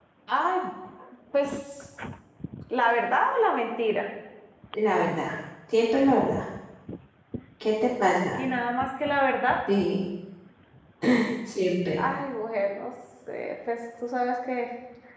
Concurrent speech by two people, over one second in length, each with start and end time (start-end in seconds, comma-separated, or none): none